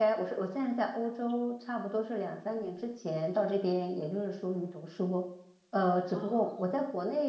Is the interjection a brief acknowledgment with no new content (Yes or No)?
Yes